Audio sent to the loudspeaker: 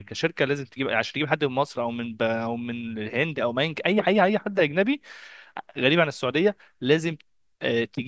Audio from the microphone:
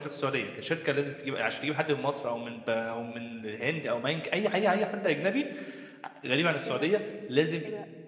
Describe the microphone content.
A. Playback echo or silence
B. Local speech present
B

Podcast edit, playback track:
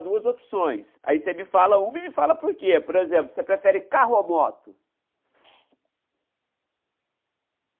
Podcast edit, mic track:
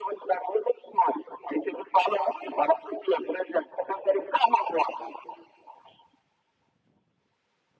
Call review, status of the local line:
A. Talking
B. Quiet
B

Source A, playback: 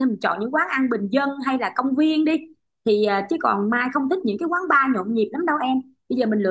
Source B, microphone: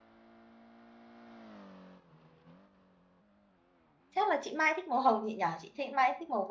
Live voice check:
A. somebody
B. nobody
A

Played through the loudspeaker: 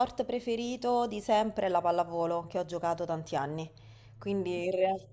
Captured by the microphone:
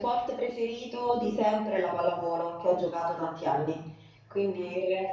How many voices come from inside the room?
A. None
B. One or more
A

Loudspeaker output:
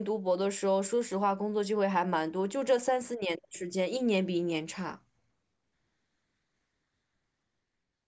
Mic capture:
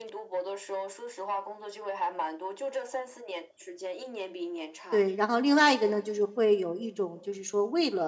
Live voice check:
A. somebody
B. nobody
A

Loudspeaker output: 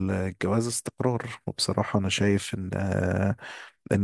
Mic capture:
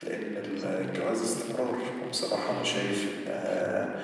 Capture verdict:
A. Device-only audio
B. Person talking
B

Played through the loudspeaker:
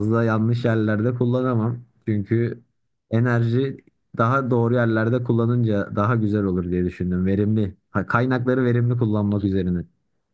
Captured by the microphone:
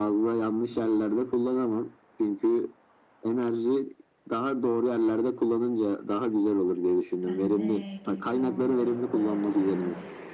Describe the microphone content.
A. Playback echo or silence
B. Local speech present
B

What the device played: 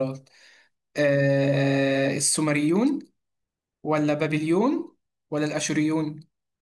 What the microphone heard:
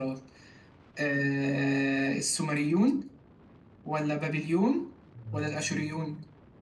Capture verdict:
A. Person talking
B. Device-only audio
A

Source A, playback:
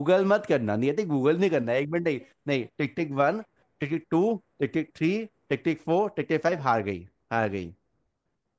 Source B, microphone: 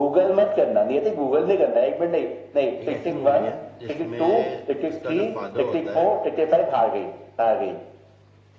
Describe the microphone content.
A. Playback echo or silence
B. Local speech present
B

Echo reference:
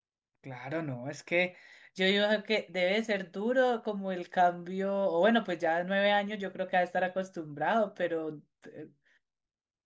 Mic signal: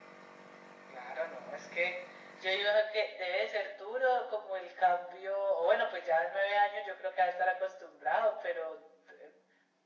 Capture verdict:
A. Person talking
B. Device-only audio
B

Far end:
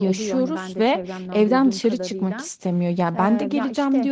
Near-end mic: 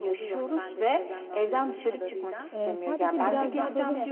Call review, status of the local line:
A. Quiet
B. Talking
B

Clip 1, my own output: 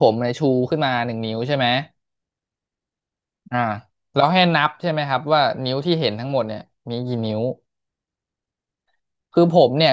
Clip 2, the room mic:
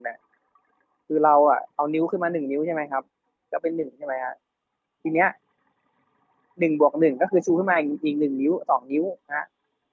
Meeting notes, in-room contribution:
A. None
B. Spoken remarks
B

